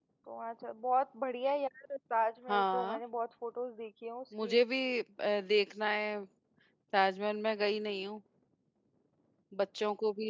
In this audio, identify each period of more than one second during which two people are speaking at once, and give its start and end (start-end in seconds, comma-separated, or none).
none